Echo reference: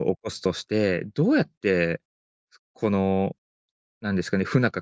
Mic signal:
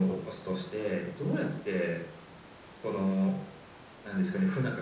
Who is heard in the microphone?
echo only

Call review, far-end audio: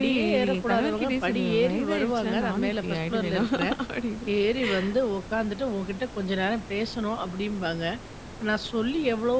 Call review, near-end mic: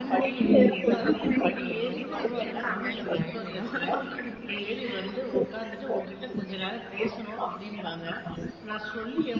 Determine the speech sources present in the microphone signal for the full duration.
echo only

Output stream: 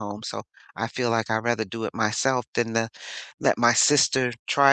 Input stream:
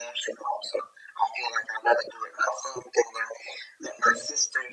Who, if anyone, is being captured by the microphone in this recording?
echo only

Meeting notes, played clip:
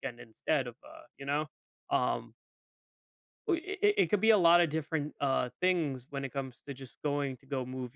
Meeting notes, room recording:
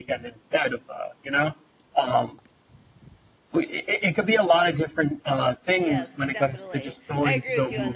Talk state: both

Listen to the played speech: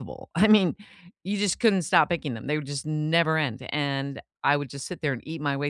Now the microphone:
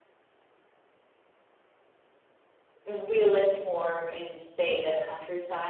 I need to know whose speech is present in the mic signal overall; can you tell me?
user only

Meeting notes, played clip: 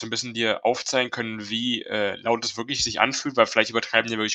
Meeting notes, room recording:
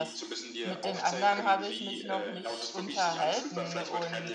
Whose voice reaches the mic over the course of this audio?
both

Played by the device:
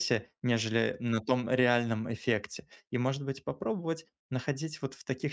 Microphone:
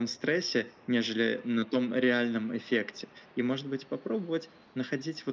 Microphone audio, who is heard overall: echo only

